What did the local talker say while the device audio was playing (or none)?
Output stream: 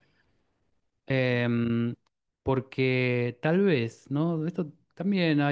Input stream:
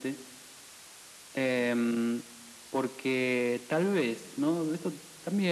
none